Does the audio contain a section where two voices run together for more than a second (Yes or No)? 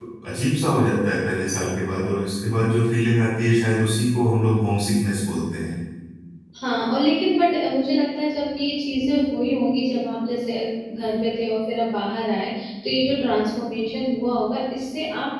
No